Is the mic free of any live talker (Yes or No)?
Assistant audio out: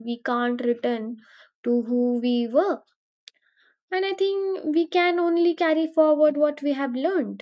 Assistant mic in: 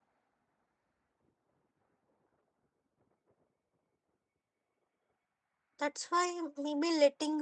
No